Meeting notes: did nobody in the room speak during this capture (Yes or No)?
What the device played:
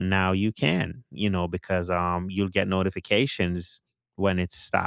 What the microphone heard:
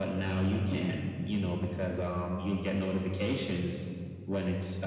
Yes